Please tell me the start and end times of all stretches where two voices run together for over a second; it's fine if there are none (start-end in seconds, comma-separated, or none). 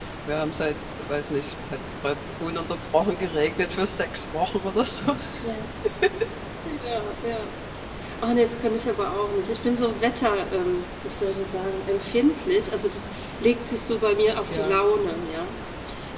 none